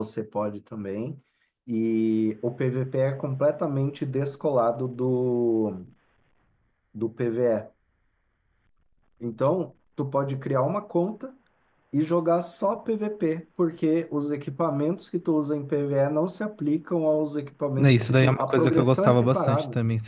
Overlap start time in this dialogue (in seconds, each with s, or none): 17.8 s